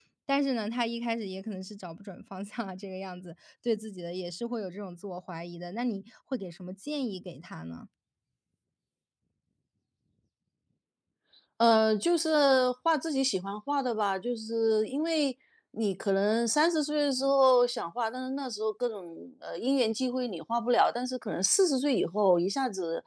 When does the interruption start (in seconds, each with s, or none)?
none